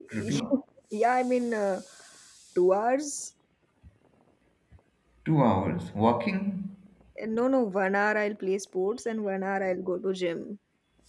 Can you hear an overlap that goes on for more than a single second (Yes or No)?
No